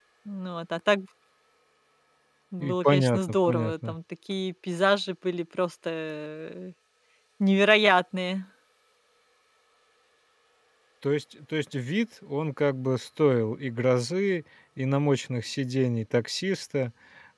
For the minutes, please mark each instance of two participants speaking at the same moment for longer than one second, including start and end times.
2.6-4.0

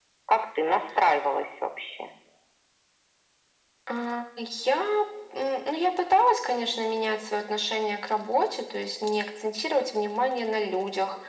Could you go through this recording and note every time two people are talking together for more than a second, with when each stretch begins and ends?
none

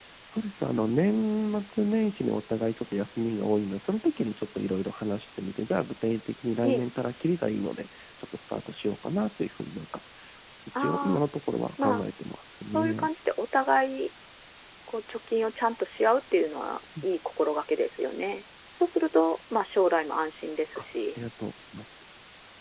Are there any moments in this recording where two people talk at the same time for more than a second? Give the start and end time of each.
none

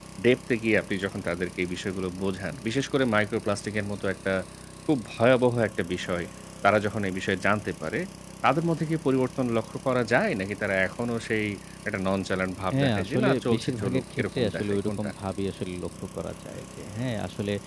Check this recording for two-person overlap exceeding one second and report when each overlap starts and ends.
12.8-15.1

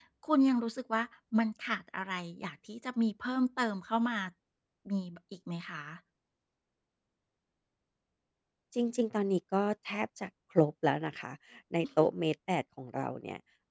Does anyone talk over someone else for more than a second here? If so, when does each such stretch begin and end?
none

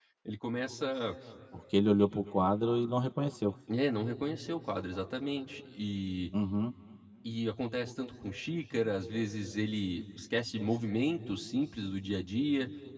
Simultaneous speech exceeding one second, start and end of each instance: none

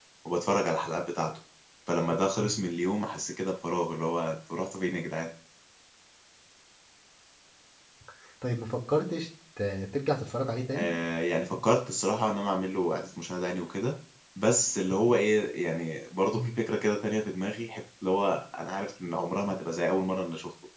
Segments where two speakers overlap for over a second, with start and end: none

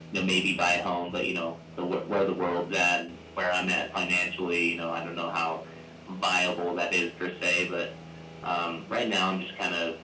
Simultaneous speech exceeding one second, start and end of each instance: none

